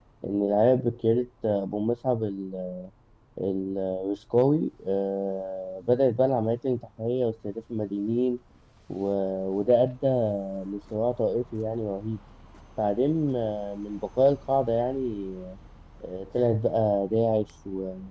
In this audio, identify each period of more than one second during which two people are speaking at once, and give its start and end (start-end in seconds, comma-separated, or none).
none